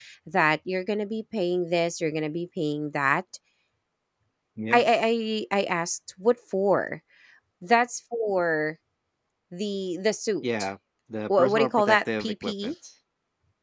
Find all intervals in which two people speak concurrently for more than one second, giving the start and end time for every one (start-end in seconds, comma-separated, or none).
11.3-12.7